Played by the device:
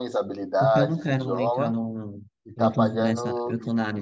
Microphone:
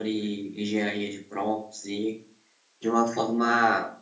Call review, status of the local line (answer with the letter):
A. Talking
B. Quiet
A